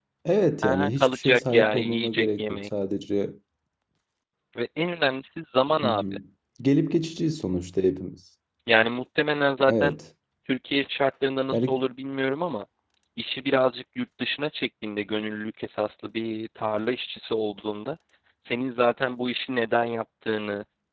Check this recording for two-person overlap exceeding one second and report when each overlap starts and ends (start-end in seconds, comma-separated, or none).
0.6-2.6